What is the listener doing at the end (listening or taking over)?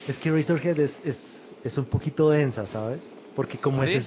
listening